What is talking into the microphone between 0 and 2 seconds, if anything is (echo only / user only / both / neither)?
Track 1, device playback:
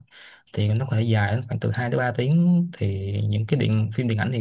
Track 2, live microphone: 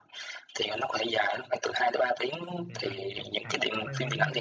echo only